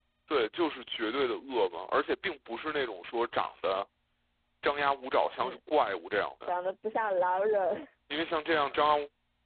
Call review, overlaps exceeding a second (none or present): none